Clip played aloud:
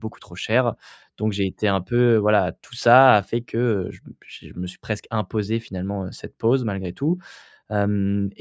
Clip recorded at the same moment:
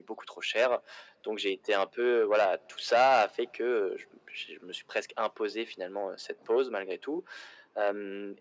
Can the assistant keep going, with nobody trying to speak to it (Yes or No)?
Yes